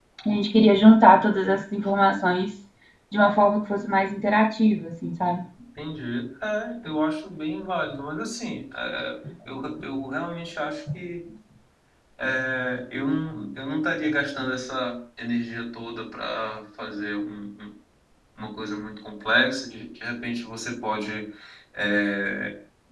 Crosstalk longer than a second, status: none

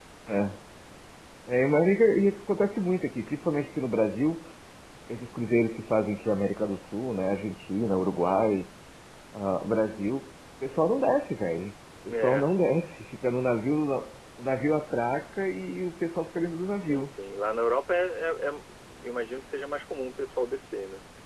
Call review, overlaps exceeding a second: none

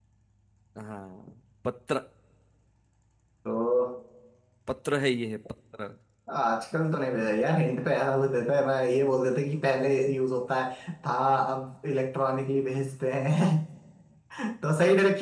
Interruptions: none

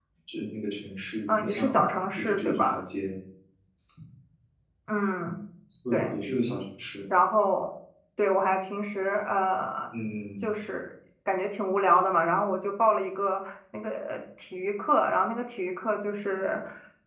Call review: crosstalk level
present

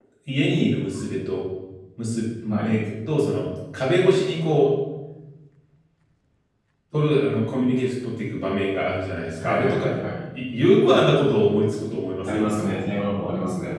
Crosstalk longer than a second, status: none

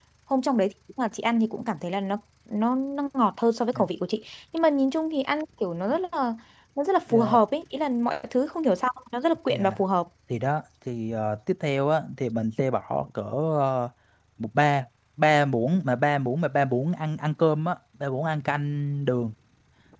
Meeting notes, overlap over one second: none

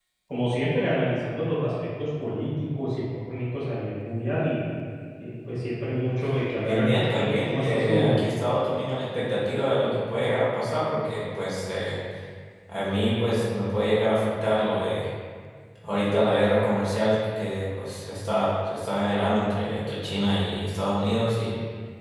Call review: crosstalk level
present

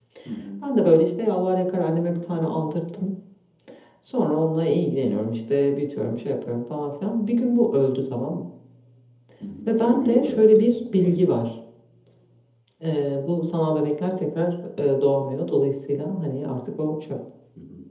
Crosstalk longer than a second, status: present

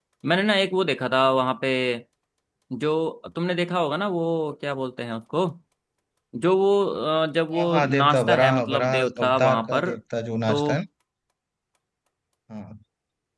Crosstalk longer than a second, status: present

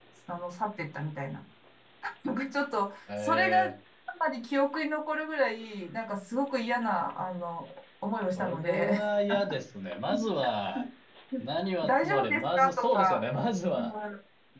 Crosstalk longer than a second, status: present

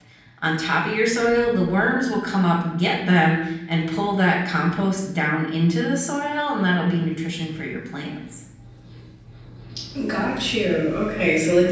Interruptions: none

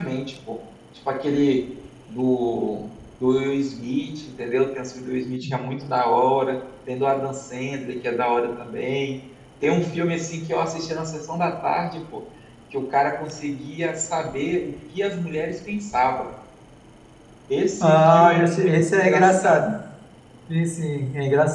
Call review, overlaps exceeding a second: present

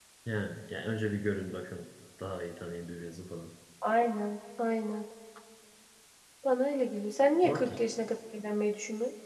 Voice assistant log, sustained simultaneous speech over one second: none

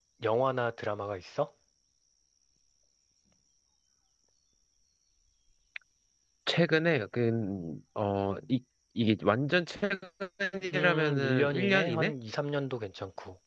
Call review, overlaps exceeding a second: present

